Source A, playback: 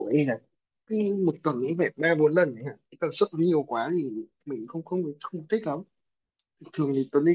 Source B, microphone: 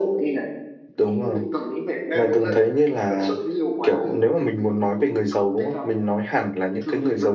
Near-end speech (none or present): present